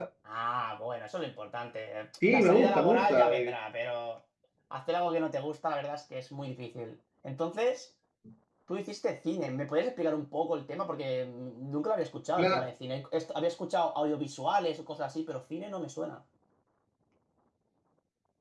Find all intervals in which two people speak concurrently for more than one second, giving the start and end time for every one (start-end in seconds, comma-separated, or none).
2.2-3.5